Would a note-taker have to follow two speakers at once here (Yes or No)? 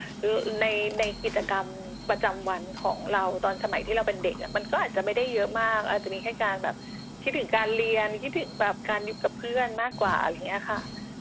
No